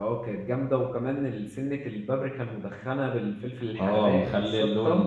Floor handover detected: Yes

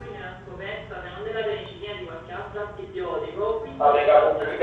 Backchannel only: No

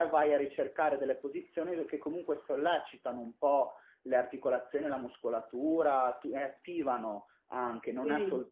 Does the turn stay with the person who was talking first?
Yes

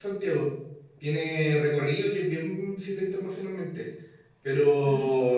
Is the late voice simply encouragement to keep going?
Yes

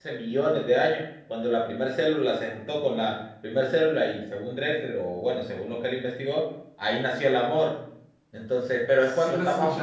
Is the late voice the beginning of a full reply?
Yes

